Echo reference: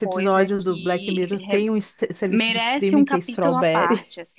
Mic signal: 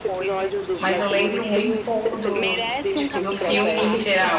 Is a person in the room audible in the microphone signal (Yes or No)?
Yes